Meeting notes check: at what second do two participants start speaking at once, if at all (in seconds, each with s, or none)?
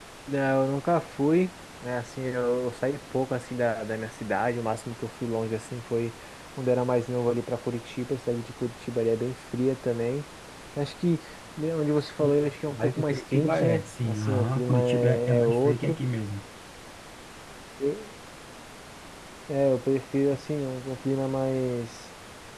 12.2 s